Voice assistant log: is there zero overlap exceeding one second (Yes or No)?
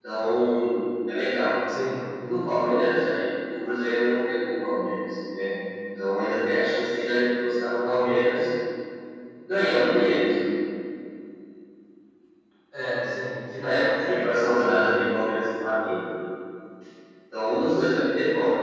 No